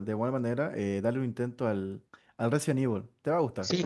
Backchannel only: No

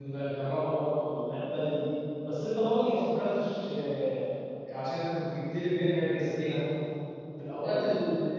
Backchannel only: Yes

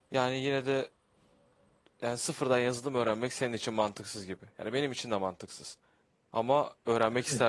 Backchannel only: Yes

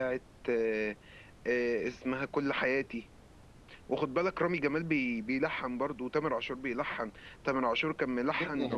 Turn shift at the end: Yes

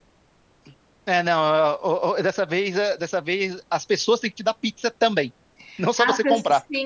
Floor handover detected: Yes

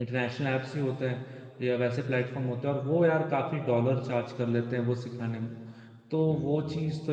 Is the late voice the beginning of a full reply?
No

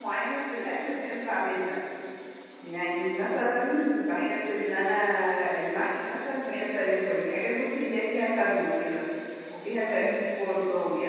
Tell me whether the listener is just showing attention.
Yes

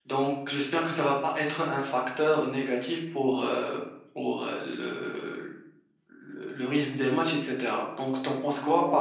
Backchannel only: No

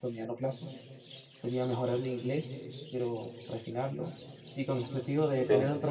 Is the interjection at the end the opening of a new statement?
No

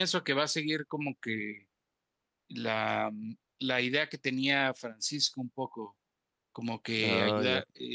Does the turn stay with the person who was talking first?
Yes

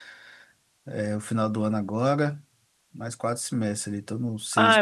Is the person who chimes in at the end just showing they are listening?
No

